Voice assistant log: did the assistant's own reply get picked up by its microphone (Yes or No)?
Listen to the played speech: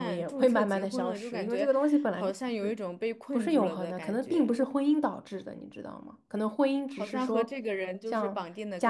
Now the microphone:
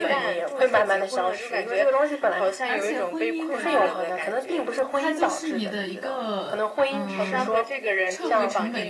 Yes